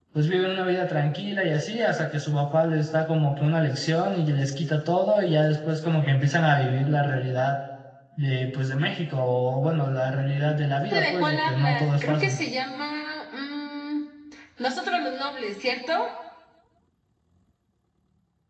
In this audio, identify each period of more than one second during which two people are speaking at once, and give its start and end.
11.0-12.4

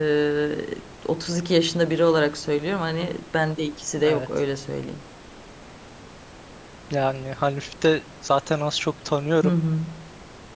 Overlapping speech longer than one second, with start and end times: none

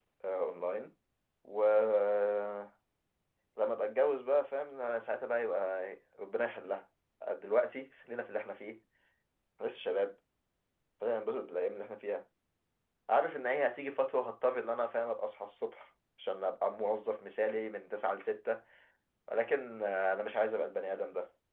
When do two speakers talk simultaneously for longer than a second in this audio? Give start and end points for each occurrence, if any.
none

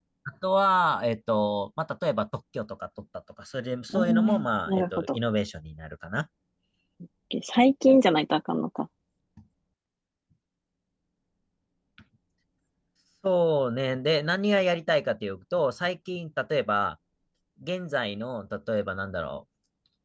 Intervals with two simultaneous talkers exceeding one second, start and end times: 3.9-5.2

